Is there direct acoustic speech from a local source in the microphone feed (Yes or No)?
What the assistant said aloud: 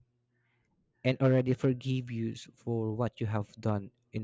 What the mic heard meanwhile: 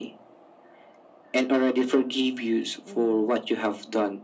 Yes